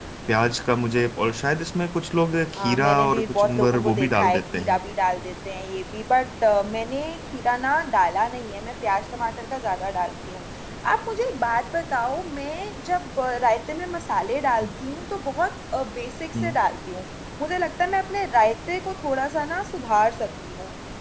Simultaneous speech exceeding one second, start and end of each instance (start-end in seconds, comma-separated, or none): 2.6-4.8